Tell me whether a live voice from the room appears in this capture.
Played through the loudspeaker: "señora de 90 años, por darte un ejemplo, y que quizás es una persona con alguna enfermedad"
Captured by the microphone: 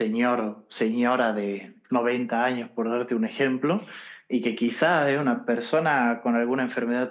No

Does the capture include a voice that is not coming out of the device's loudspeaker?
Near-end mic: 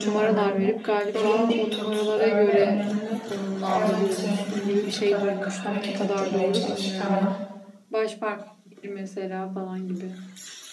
Yes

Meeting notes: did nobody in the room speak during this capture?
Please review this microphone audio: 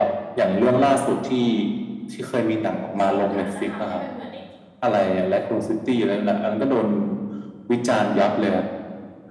No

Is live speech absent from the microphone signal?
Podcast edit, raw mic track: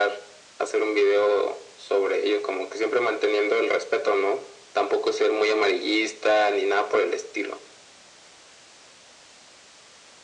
Yes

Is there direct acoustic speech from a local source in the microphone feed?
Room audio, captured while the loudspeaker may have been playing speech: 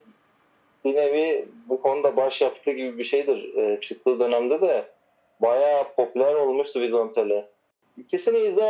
No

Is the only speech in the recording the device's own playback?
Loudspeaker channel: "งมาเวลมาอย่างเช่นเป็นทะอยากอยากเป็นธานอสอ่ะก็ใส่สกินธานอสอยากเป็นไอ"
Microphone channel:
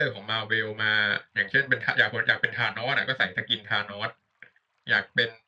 Yes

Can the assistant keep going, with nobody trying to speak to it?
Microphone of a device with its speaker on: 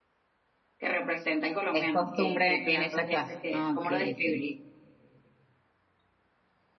No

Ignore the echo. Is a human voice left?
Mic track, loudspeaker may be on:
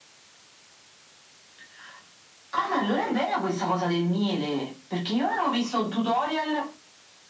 No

